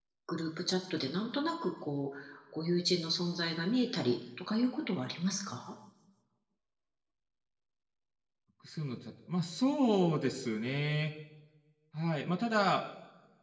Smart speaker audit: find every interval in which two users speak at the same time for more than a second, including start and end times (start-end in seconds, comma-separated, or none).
none